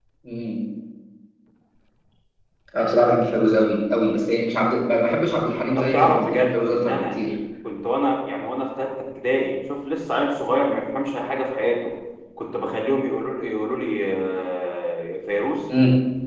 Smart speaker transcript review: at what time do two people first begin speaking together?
5.8 s

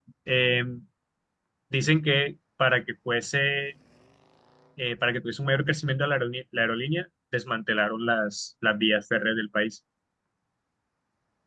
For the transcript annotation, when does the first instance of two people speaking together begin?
none

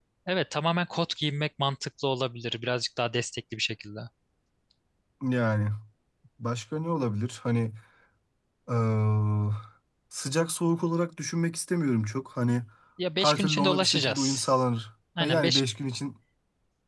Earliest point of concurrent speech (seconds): 13.2 s

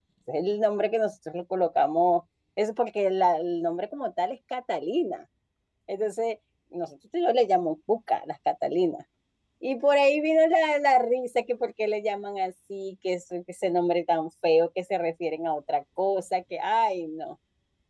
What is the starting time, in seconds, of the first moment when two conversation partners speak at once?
none

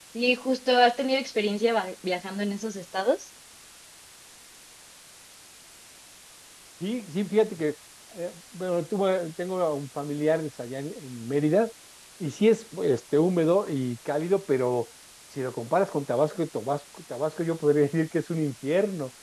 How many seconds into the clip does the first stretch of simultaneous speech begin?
none

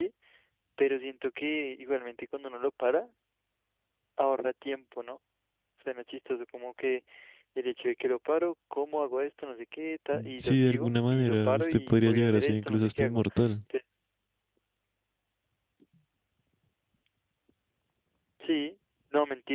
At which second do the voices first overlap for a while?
10.4 s

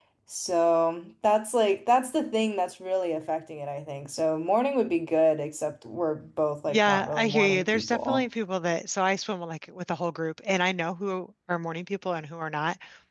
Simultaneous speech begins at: 6.7 s

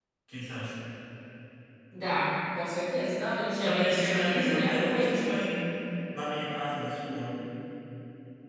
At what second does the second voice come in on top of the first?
3.6 s

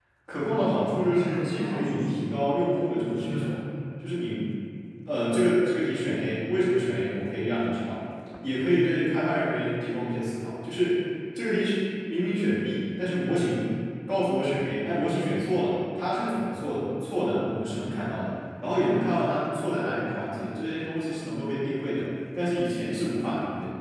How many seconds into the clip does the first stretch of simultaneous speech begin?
0.8 s

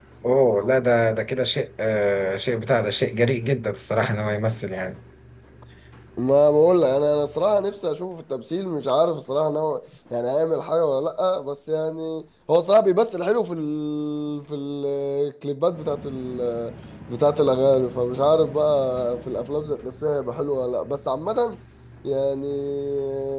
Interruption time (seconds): none

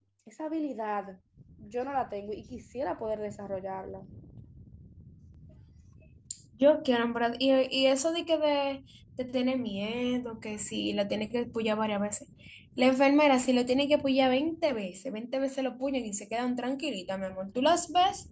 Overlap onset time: none

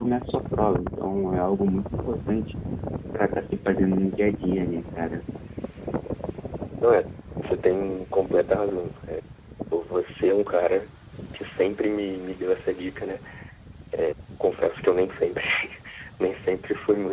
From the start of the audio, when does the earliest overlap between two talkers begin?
none

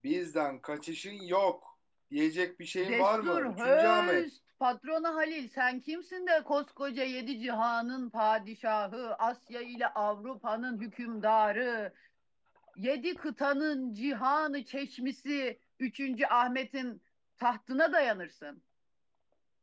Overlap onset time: 2.8 s

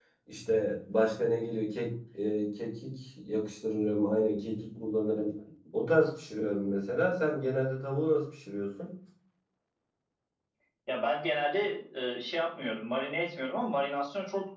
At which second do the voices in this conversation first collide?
none

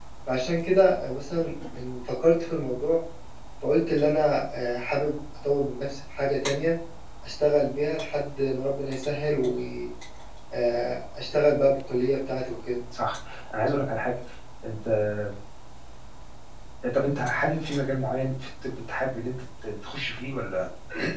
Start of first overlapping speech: none

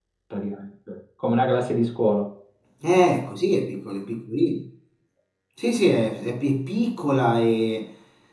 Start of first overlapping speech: none

